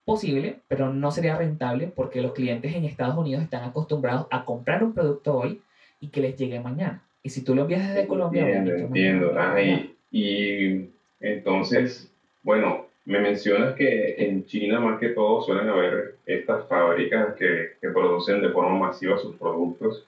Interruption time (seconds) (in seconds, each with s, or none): 7.9 s